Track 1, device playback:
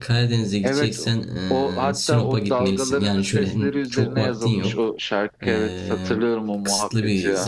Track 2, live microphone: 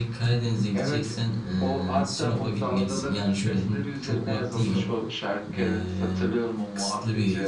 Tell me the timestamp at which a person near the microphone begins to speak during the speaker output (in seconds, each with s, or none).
none